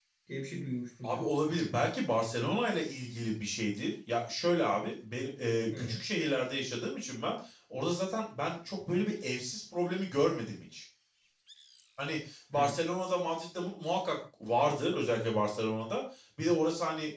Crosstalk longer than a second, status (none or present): none